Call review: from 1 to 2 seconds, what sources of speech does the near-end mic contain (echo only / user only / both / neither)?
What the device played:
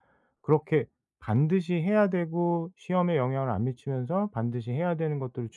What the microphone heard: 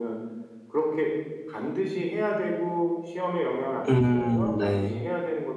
echo only